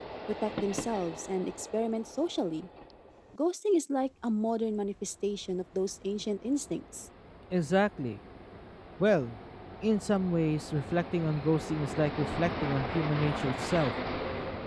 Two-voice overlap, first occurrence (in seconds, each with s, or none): none